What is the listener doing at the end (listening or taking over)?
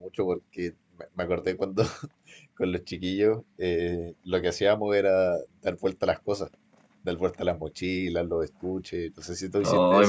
taking over